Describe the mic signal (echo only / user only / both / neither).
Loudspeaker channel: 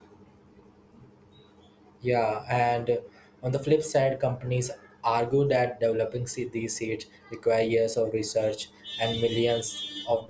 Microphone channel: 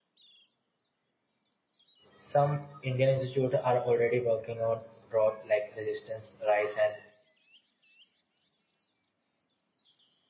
user only